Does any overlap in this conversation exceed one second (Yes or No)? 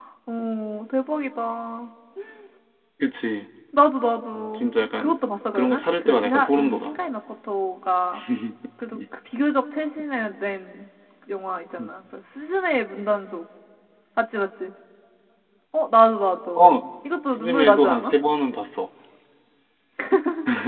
Yes